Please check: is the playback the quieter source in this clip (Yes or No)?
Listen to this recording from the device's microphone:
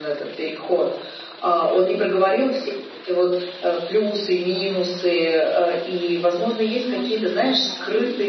No